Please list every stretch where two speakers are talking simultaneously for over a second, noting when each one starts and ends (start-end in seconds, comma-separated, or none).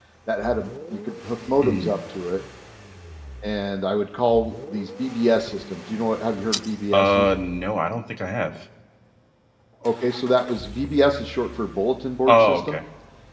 none